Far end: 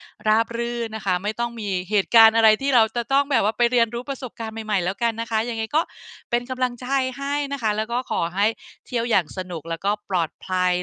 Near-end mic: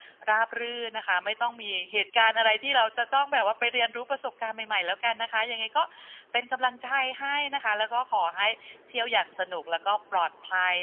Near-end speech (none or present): none